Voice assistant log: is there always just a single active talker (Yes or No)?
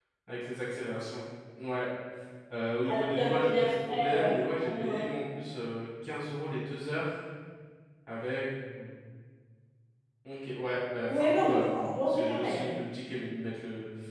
No